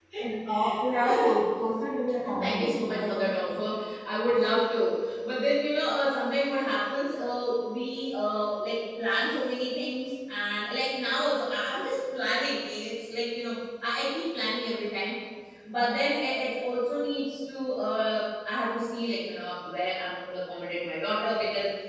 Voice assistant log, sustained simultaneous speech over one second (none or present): present